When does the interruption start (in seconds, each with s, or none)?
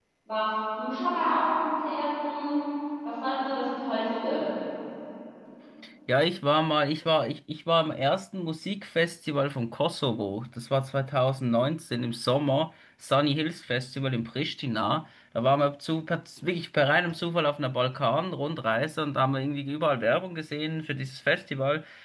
none